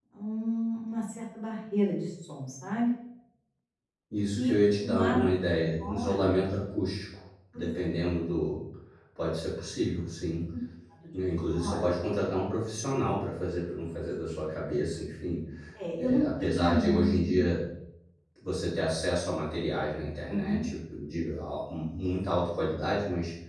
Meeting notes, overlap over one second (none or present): present